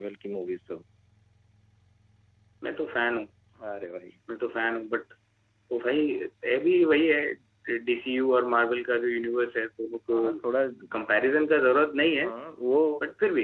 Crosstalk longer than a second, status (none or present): none